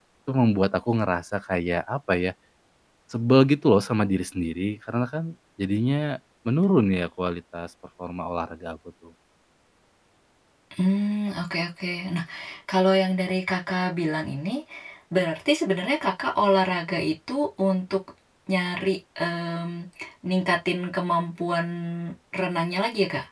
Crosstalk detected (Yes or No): No